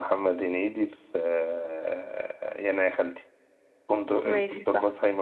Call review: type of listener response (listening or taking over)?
taking over